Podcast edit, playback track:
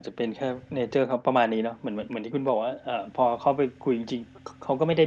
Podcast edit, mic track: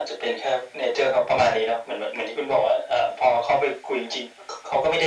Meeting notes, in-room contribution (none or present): none